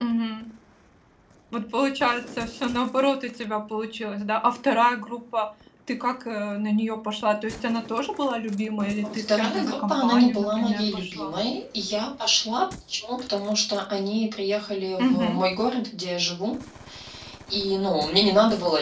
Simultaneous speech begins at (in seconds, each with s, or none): 9.0 s